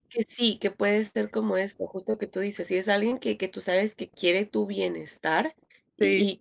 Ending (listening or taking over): listening